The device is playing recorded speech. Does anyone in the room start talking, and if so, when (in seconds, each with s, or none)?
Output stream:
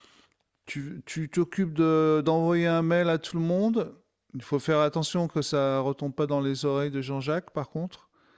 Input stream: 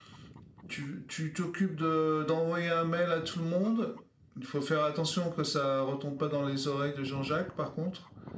none